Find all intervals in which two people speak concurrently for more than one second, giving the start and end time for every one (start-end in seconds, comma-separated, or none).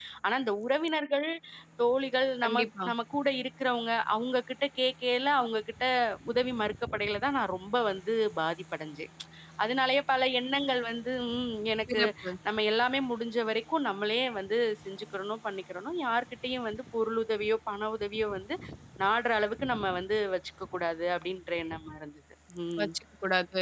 none